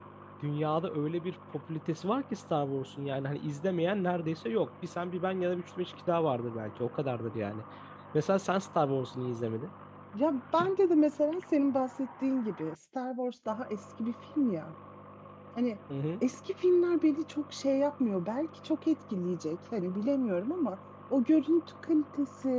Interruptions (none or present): none